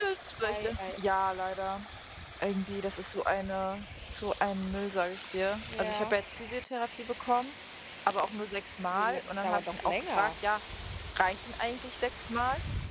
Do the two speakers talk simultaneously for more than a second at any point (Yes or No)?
Yes